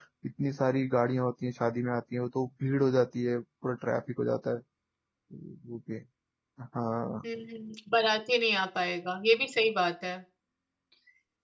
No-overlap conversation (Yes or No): Yes